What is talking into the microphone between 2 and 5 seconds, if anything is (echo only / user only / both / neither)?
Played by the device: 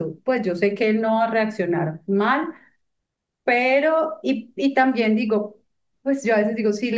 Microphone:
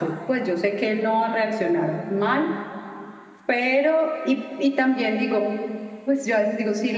echo only